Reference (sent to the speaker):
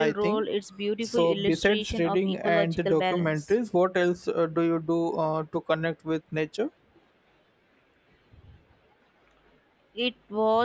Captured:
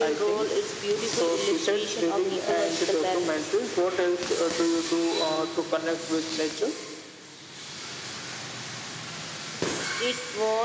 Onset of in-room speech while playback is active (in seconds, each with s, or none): none